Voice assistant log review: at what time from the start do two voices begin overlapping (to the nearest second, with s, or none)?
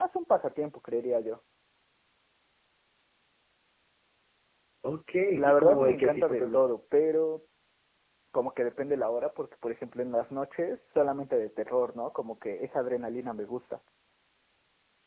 5 s